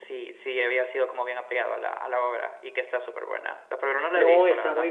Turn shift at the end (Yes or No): Yes